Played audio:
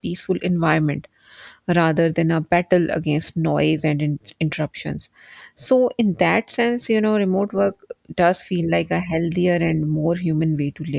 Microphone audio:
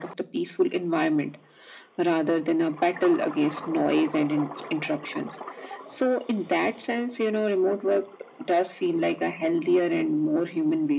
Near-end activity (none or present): none